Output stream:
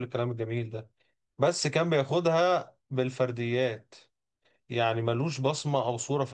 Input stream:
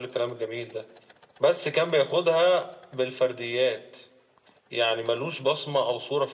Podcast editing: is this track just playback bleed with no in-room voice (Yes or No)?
Yes